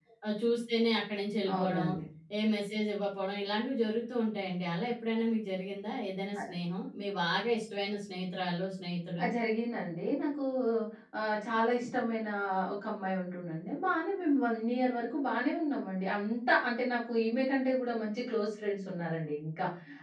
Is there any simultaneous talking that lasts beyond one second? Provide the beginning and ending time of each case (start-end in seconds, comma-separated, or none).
none